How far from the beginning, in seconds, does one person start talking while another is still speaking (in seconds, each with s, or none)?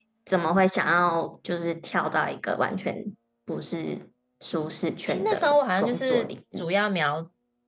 5.0 s